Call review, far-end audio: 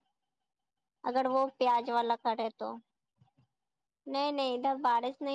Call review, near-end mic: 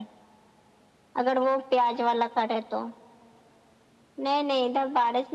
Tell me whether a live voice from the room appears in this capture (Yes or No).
No